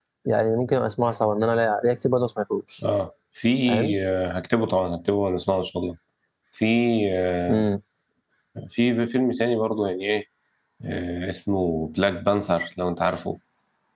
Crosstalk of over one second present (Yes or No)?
No